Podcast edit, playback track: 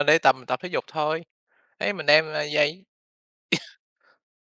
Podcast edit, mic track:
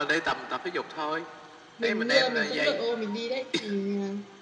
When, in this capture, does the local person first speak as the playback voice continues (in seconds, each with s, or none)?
1.8 s